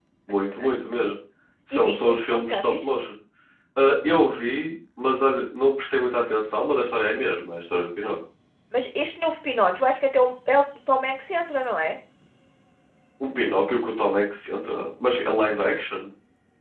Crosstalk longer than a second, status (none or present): present